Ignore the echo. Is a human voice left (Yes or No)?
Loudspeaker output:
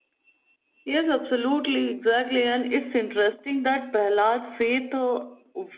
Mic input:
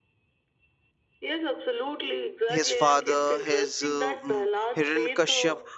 Yes